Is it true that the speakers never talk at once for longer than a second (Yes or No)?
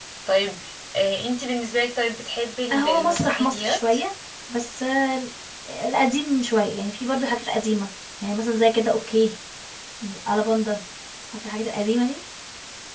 No